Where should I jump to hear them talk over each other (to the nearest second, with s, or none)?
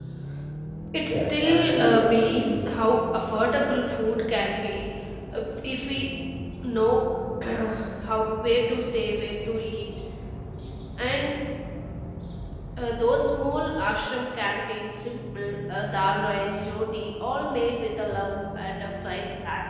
1 s